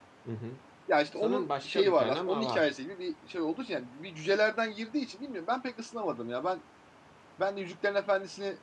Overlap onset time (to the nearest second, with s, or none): 1 s